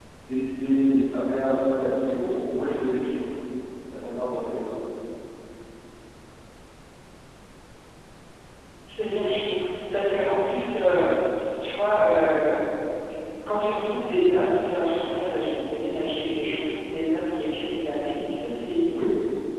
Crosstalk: none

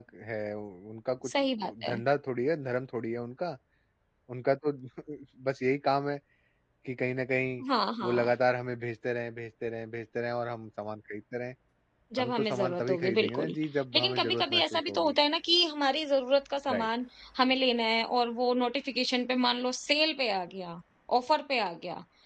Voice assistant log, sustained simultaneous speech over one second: present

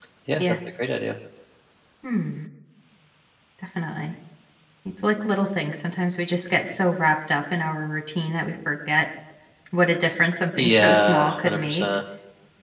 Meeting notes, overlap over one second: present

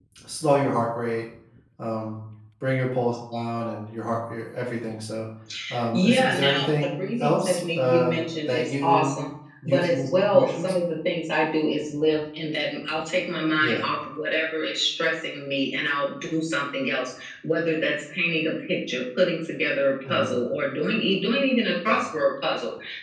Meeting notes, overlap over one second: present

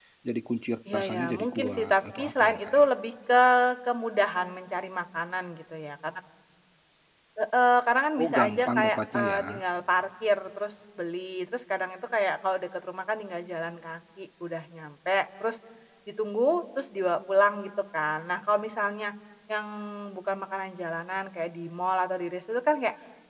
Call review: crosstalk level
present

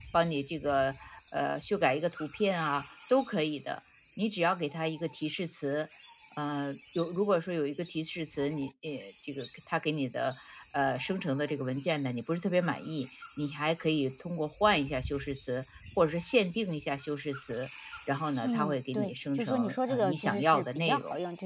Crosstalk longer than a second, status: present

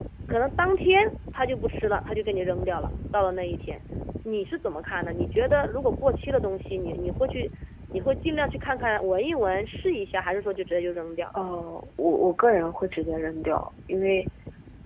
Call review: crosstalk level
none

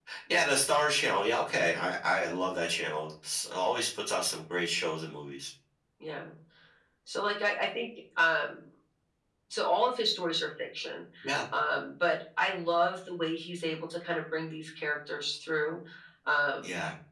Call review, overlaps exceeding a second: none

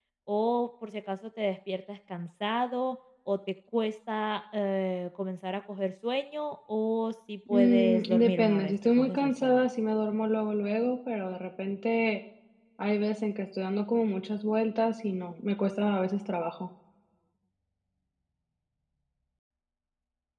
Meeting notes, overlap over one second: present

